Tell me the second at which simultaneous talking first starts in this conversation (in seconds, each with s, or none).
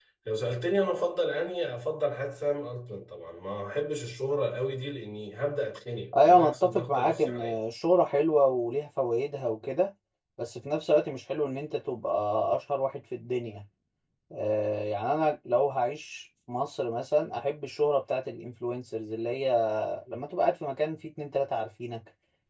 6.1 s